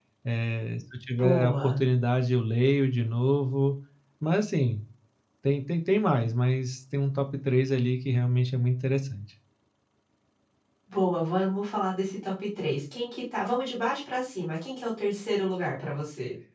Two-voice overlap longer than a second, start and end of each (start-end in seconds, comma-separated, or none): none